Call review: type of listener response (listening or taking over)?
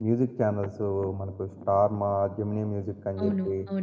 taking over